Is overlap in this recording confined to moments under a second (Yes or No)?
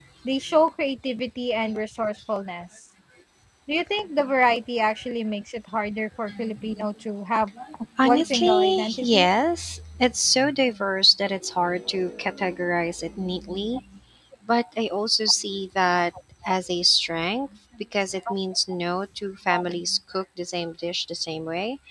No